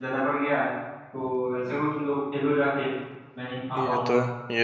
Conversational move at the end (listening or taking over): taking over